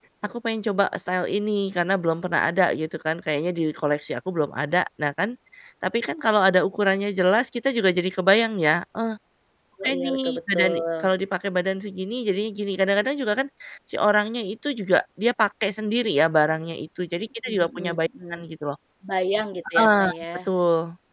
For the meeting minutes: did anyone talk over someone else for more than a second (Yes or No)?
Yes